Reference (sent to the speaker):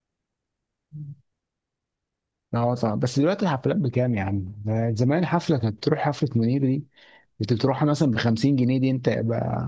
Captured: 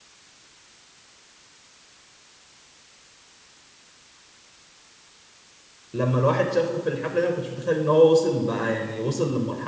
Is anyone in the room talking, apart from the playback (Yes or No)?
Yes